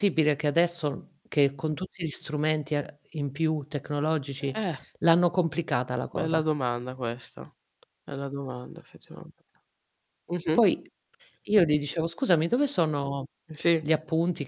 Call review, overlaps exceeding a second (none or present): none